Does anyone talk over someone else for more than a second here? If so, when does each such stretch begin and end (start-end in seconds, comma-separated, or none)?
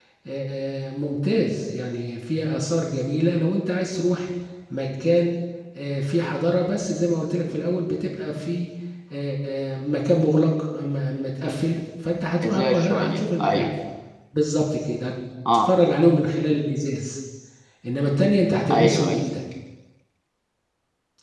12.4-13.7